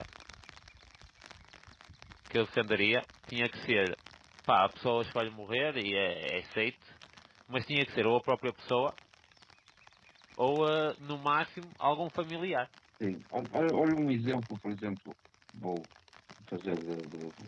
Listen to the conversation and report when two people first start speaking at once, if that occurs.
none

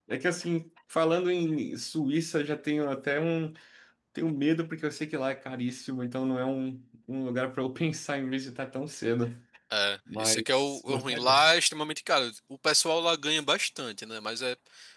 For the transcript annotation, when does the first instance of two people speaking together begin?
10 s

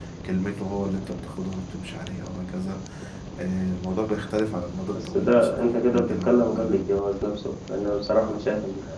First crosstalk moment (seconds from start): 5 s

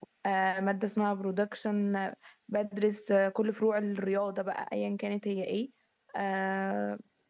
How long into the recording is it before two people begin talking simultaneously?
none

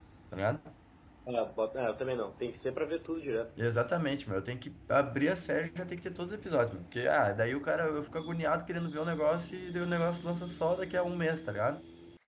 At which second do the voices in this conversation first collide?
none

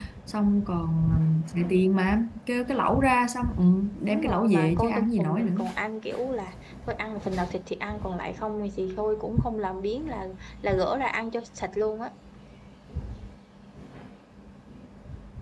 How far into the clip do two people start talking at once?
4 s

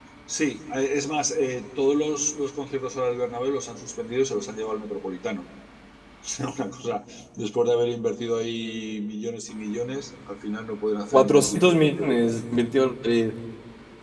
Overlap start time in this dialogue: 11 s

